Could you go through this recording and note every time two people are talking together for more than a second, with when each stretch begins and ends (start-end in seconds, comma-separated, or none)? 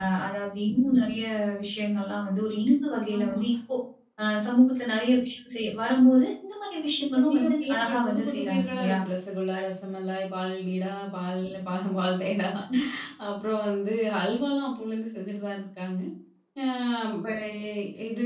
7.3-9.0